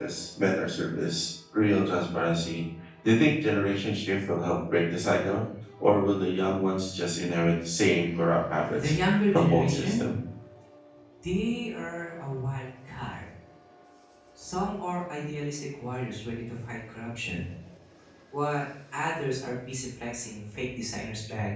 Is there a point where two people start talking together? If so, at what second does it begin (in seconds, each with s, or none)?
8.7 s